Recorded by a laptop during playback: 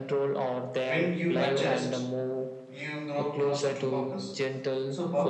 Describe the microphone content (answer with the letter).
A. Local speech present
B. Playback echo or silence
A